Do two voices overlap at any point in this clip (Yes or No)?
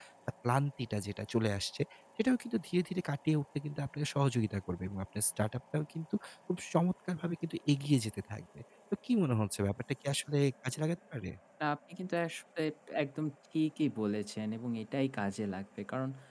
No